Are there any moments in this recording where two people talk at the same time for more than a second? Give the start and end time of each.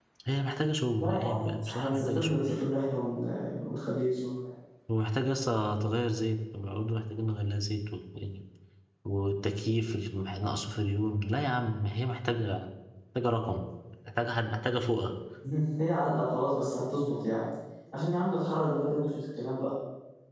1.0-2.5

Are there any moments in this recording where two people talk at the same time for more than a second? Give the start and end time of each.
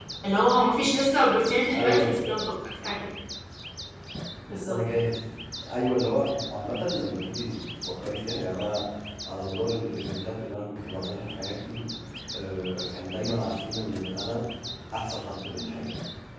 none

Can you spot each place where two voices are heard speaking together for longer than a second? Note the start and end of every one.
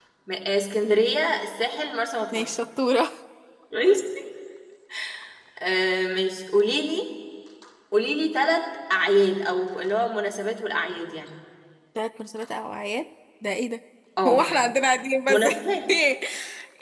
none

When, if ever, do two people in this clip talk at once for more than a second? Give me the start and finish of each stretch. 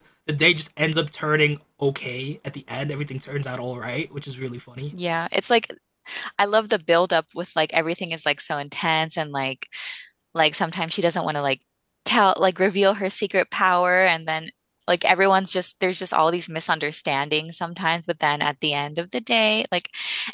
none

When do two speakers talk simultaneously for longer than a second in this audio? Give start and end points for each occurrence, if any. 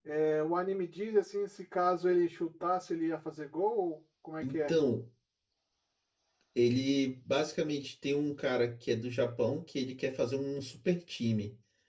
none

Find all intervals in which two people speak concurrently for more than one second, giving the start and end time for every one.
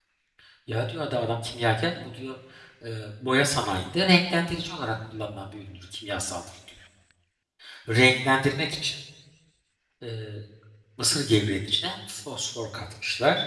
none

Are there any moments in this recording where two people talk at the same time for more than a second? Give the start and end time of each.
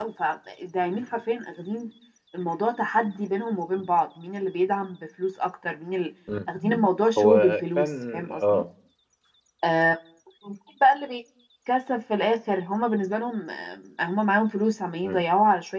7.2-8.6

